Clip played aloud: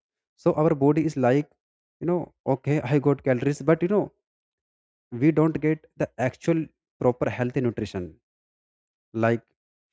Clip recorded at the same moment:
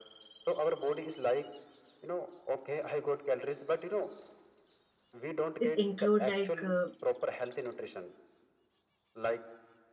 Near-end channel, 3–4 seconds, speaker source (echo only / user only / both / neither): echo only